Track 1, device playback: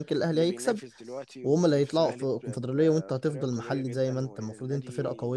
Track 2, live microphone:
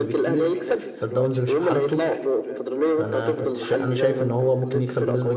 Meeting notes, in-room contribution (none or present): present